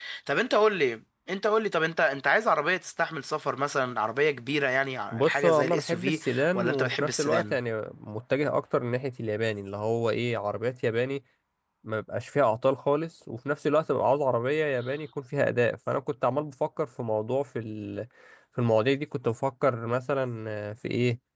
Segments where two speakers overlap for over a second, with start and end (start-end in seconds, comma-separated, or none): 5.1-7.6